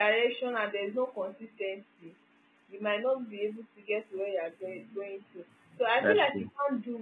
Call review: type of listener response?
listening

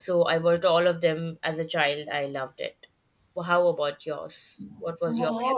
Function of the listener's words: taking over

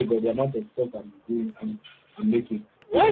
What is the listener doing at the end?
taking over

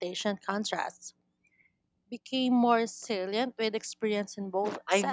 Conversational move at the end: taking over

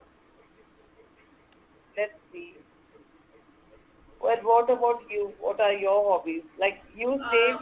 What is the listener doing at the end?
listening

